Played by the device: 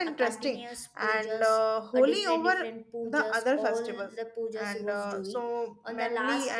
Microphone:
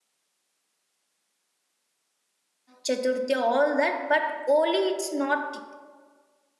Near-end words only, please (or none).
Chaturthi, all that. But Holi, it's not